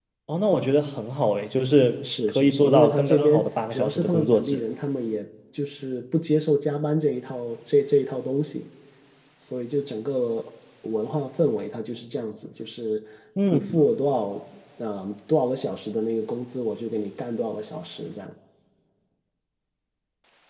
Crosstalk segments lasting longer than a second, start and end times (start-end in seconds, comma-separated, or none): 2.0-4.6